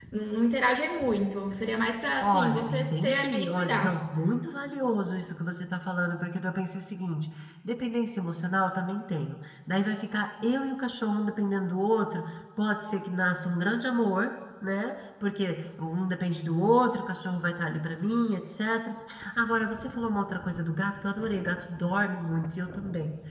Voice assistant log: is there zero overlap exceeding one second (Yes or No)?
No